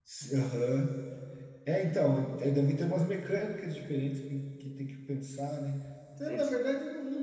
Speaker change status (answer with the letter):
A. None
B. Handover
A